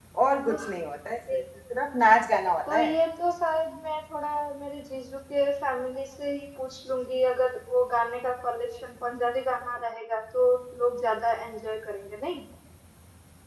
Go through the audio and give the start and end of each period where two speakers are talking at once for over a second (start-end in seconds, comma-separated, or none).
none